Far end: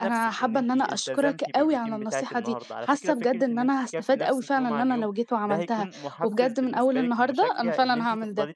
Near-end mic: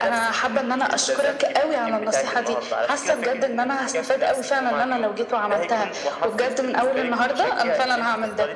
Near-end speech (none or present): none